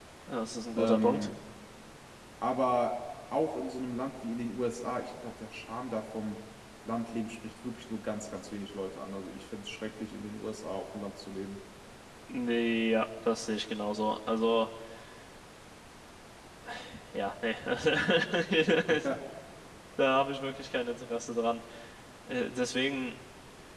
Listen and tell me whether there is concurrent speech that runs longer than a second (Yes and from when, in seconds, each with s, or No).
No